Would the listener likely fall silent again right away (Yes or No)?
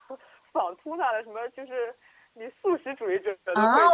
No